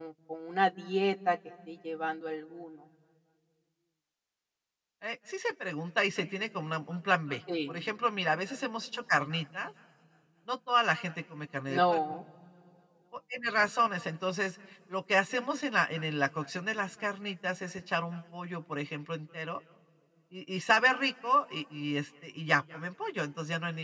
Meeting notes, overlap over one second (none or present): none